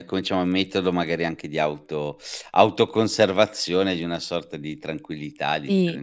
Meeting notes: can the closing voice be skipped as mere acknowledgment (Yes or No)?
No